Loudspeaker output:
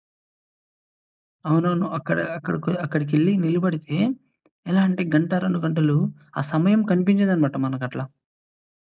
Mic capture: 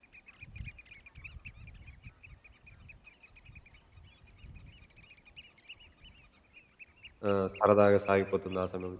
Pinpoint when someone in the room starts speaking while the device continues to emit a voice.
7.3 s

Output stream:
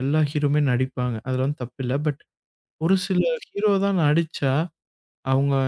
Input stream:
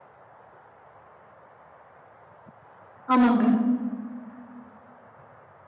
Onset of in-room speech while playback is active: 3.1 s

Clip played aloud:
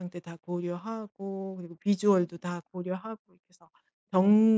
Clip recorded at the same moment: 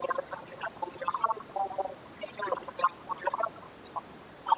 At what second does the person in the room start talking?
none

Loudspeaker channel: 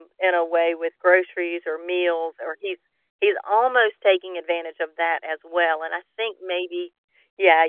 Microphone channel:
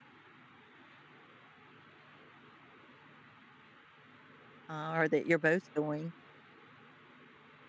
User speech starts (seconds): 4.7 s

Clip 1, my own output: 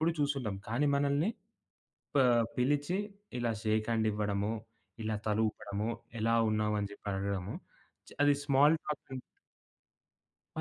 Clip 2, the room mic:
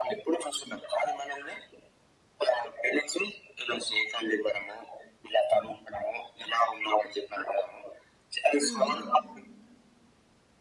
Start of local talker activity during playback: 8.6 s

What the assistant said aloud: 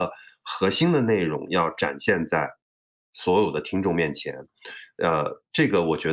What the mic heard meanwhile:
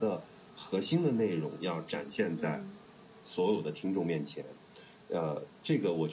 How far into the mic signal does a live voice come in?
2.4 s

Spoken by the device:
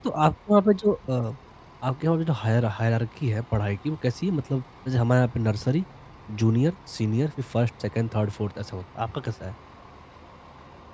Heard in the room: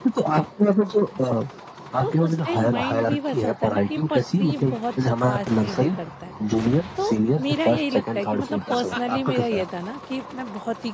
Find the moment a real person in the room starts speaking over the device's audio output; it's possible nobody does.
2.0 s

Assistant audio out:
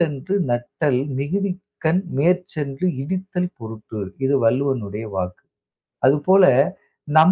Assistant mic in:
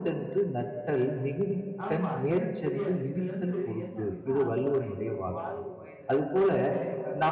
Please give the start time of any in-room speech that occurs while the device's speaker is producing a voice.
1.9 s

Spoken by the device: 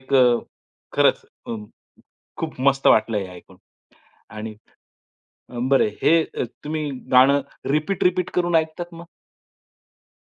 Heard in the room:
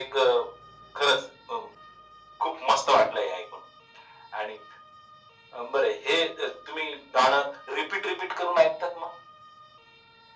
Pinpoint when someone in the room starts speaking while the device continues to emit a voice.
none

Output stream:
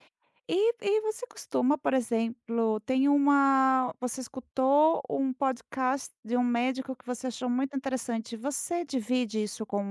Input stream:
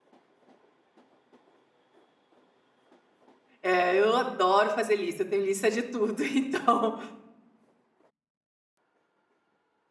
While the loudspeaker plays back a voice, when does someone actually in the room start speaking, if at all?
3.6 s

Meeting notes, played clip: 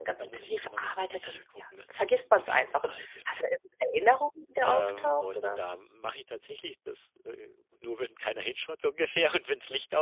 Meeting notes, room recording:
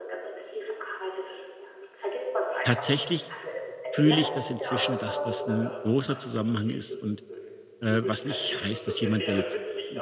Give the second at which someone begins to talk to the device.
2.6 s

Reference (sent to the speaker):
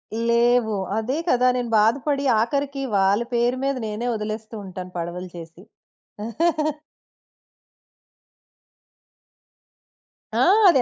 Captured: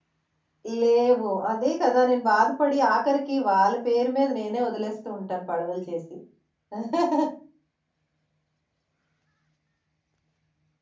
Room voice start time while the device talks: none

